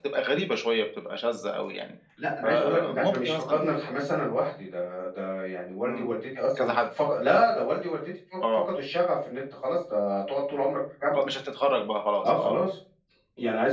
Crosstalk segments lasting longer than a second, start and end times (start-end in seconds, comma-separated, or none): 2.4-3.6